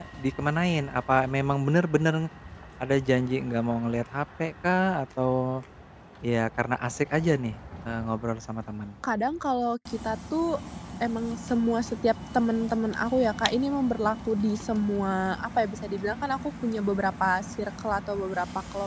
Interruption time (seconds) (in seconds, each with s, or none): none